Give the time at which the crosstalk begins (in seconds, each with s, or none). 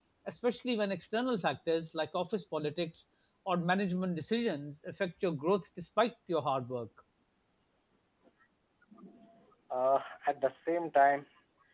none